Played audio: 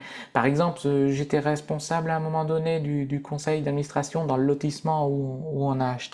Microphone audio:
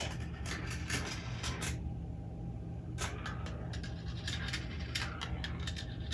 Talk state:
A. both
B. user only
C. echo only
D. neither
D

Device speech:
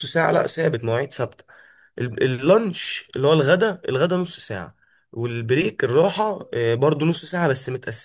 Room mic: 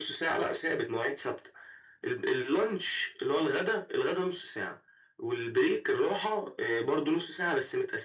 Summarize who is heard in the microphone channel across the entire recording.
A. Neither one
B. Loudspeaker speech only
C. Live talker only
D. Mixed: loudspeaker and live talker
B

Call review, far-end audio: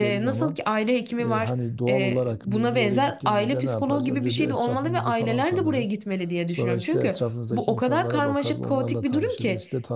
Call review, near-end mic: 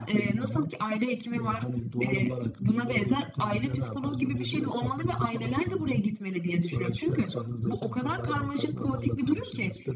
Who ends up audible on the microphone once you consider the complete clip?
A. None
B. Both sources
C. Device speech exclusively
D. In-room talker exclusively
C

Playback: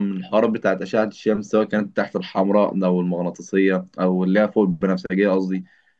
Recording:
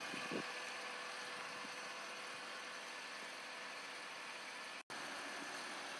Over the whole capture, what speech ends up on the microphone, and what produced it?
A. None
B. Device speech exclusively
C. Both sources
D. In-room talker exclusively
A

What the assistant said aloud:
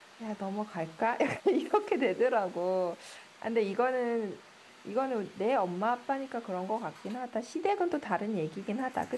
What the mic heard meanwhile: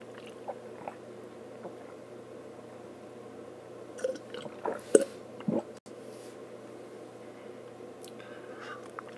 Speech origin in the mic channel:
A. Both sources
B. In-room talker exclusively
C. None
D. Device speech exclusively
C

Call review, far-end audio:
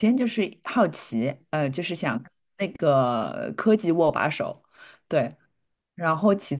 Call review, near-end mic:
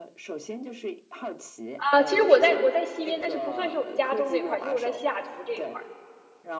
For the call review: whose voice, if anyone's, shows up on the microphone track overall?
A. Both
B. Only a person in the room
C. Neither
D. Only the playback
A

